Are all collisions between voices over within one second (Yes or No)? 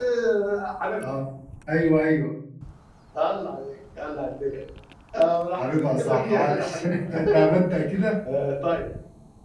No